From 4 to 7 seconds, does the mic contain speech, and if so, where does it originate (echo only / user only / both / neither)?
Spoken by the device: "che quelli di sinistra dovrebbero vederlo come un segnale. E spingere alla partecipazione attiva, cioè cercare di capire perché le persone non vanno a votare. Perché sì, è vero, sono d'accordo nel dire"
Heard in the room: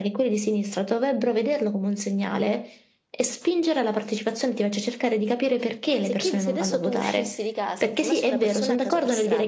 both